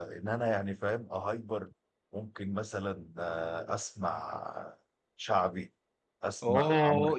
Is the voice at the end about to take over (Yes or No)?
Yes